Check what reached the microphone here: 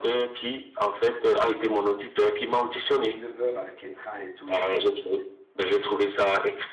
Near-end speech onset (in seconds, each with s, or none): 2.7 s